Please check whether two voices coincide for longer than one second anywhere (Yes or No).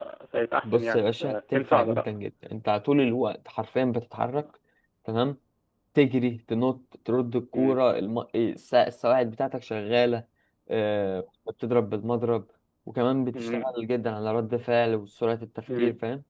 Yes